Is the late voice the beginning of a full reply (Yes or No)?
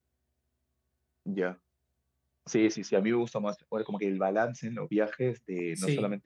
No